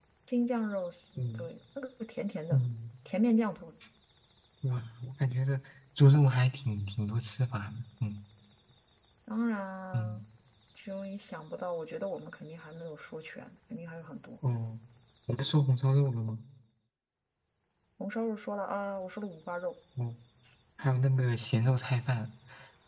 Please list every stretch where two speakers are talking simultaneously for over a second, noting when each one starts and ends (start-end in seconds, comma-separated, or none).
none